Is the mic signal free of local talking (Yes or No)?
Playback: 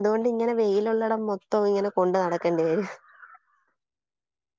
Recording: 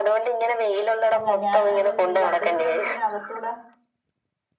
No